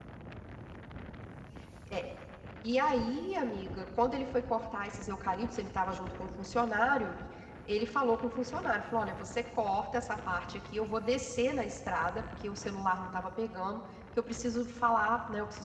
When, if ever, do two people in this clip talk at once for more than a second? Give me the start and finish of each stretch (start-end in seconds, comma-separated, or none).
none